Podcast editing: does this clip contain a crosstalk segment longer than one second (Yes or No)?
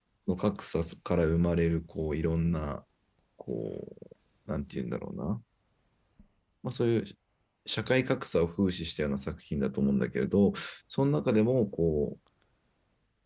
No